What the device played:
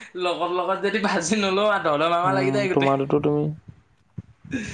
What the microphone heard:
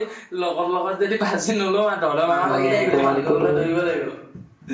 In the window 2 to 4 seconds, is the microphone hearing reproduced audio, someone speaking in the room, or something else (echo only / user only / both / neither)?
both